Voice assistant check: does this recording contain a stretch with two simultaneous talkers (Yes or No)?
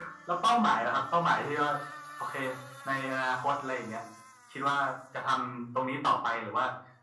No